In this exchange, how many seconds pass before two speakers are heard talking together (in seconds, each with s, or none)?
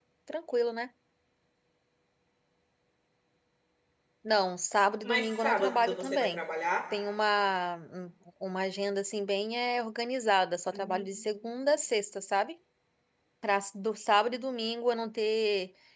5.0 s